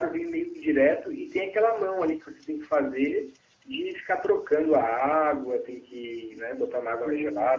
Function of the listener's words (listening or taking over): taking over